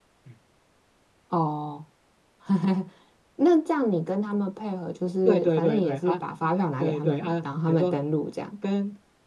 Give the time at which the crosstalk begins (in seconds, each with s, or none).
5.2 s